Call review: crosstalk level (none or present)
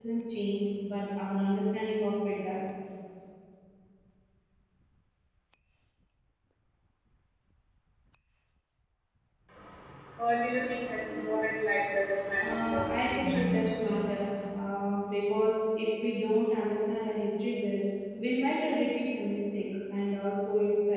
present